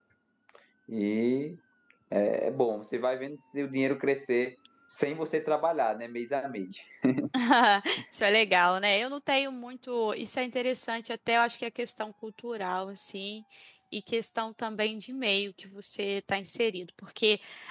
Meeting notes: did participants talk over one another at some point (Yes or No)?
No